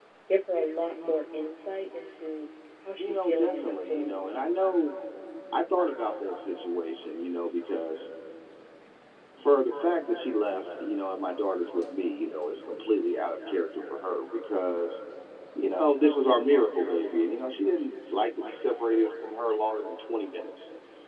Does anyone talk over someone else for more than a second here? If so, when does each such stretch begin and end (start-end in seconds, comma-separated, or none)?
3.0-4.4